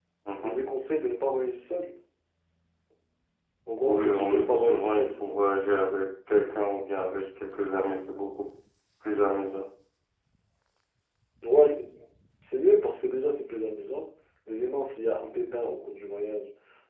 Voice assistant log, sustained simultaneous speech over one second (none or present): present